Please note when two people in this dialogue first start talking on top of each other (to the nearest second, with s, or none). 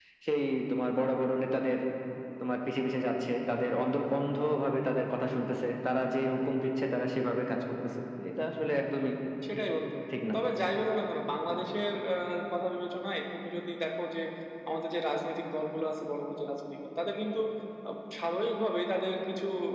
none